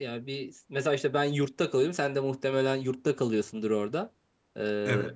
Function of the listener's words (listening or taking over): listening